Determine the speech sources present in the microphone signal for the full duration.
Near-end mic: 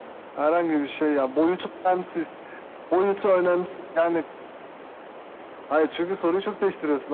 echo only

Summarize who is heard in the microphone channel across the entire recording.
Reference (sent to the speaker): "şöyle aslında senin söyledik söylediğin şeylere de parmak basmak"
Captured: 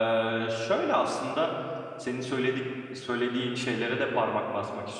echo only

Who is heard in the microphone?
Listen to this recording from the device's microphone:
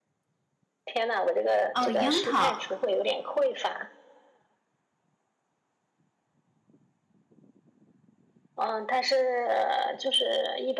both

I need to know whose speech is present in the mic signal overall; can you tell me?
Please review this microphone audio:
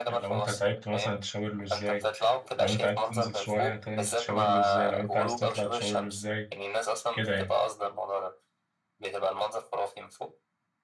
both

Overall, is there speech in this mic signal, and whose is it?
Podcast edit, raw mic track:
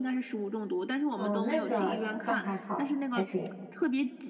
both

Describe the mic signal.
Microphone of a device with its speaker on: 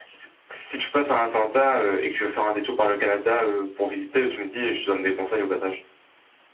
echo only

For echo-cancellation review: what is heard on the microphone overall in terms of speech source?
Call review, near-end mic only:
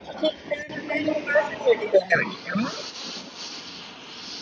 echo only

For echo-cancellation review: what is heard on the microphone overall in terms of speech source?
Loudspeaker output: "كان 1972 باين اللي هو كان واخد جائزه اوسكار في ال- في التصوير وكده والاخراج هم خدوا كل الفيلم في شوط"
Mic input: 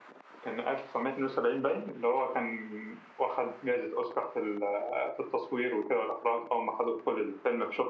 echo only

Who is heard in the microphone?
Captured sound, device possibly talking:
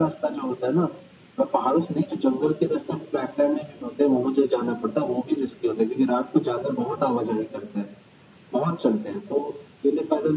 echo only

